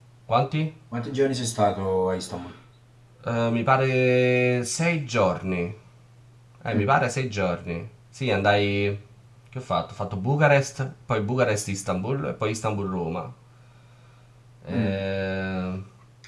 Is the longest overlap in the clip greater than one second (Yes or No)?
No